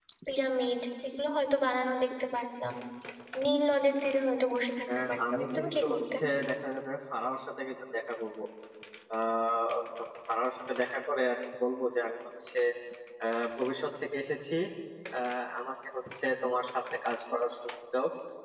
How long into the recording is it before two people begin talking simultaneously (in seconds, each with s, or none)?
4.9 s